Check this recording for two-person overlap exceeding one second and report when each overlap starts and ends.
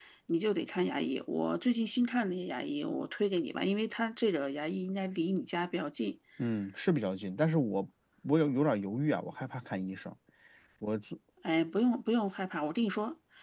none

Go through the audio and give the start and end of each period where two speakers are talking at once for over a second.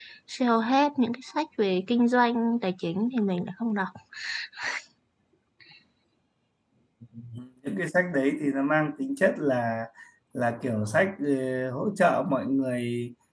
none

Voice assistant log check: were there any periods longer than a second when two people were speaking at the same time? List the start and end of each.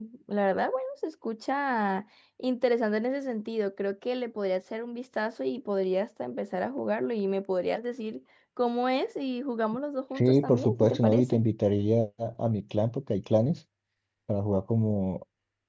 10.2-11.4

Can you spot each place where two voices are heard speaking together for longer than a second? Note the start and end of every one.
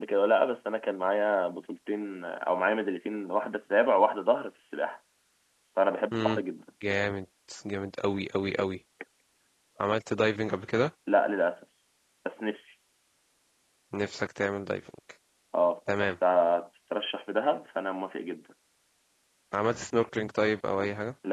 none

